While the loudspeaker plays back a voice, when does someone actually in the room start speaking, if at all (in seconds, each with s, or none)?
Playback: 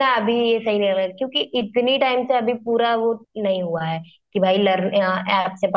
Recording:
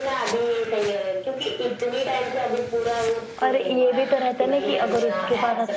3.4 s